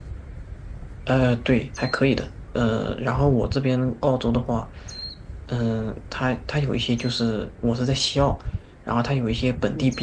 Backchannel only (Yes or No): Yes